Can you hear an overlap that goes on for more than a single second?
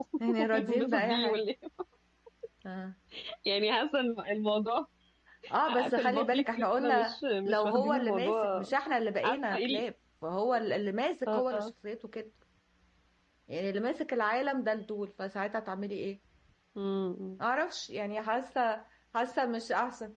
Yes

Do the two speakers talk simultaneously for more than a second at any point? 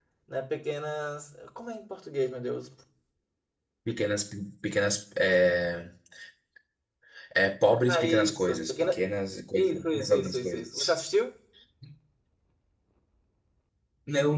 Yes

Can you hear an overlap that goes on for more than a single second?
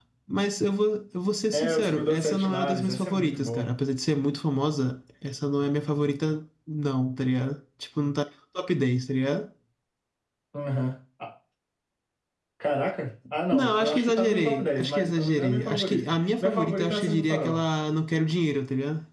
Yes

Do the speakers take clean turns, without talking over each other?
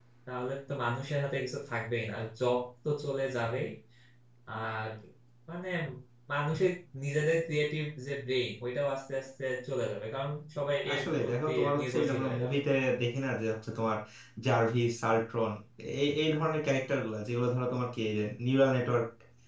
No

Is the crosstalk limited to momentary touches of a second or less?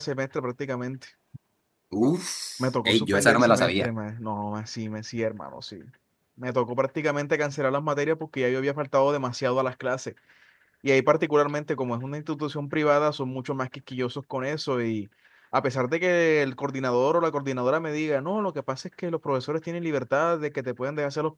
No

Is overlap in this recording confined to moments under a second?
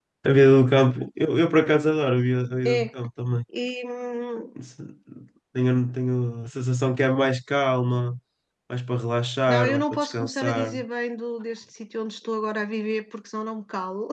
No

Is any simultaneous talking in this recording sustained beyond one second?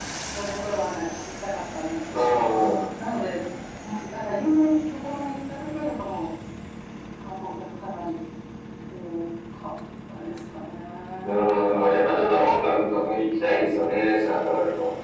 No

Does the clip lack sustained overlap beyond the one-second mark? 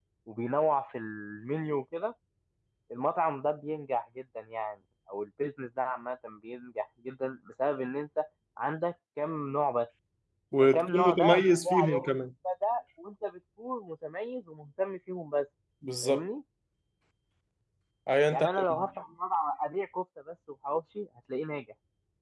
No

